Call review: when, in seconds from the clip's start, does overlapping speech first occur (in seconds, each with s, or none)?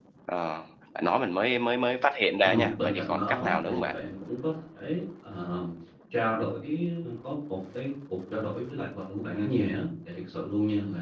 2.4 s